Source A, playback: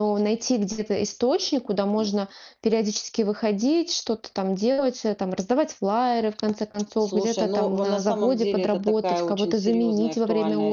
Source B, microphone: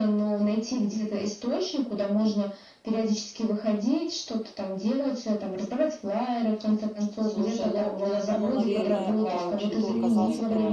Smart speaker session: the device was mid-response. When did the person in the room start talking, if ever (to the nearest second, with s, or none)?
8 s